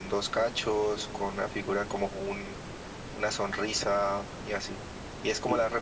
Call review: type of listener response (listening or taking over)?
listening